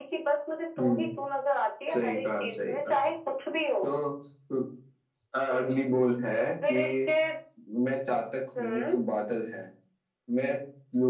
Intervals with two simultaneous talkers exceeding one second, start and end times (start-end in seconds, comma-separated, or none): 1.9-3.1